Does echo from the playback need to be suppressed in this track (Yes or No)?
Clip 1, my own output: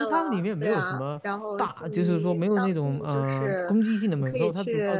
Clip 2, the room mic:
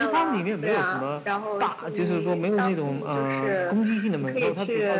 Yes